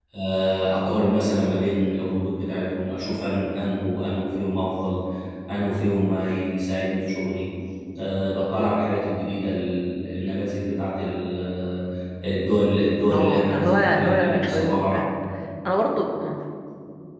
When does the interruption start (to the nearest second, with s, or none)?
13 s